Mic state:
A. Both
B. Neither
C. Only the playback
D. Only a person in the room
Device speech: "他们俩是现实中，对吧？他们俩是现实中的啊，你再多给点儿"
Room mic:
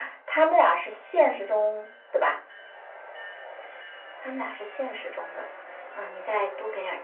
C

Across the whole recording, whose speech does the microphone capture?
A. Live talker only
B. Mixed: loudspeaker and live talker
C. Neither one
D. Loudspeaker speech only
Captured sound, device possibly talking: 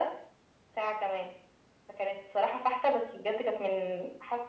D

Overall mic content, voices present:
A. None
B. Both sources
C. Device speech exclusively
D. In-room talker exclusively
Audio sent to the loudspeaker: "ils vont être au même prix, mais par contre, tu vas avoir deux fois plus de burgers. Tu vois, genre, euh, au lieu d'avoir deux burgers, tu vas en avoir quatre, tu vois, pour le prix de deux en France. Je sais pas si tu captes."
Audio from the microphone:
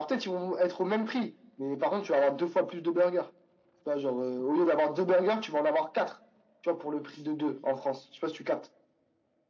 C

